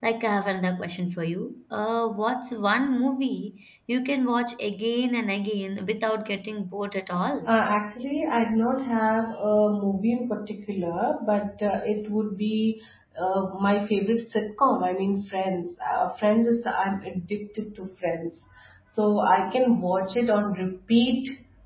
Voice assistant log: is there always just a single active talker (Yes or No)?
Yes